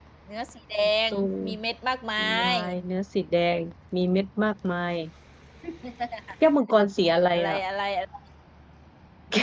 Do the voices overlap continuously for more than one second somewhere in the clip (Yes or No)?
No